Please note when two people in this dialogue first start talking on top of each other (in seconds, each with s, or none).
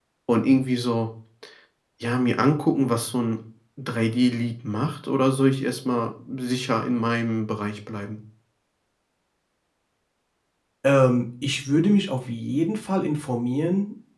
none